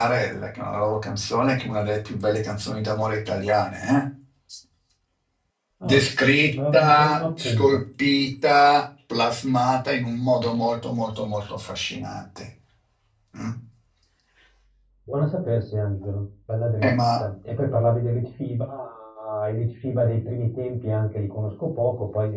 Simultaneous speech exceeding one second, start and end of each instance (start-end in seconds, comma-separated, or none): 6.5-7.8